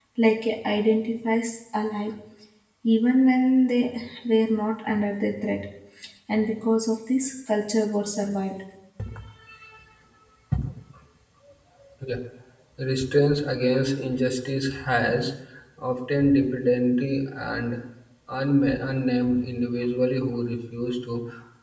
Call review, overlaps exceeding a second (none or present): none